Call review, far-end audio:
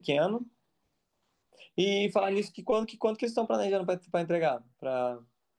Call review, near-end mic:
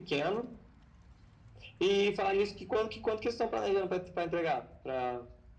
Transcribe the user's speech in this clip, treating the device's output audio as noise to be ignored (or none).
none